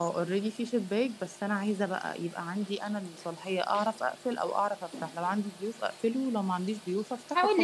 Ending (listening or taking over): taking over